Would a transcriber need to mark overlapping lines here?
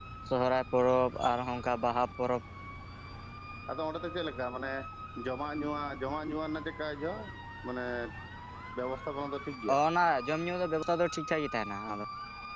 No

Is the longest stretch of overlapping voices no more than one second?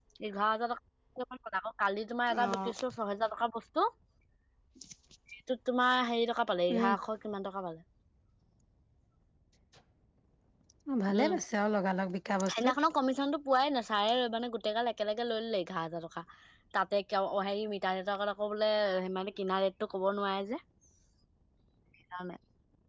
Yes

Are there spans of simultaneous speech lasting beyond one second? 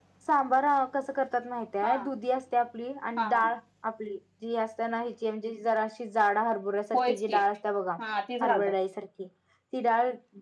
No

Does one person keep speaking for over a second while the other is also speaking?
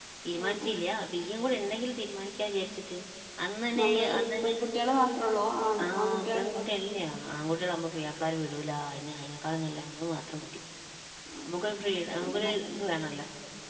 Yes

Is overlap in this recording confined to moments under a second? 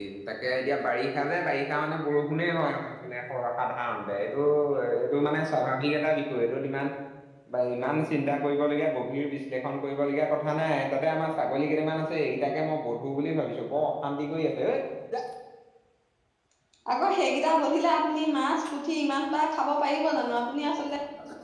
Yes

